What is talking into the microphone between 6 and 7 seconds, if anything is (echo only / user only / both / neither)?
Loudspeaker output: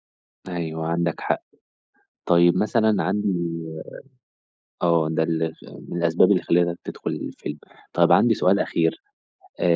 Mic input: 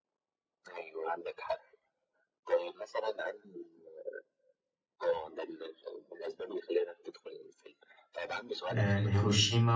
echo only